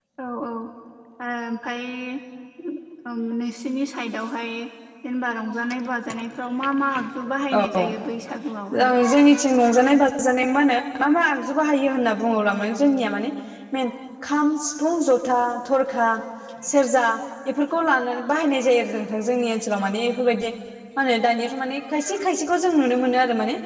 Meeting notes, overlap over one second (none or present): none